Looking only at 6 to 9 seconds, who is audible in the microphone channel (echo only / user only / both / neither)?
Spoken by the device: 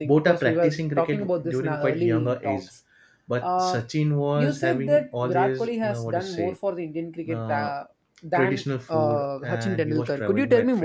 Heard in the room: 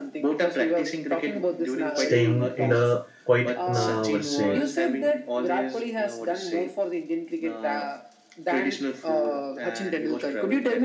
echo only